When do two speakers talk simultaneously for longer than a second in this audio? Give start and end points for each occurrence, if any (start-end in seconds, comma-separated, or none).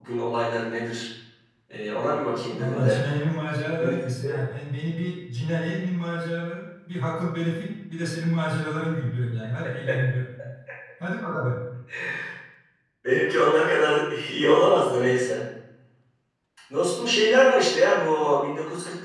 none